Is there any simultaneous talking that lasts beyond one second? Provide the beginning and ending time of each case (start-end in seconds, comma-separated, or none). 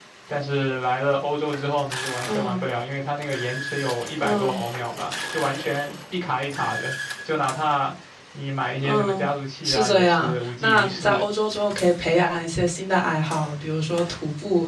9.6-11.2